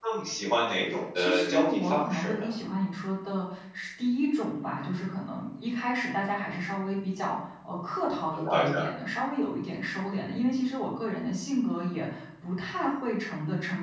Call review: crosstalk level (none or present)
present